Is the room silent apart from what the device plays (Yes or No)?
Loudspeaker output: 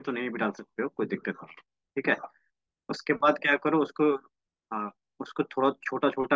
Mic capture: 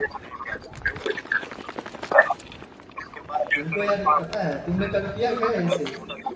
No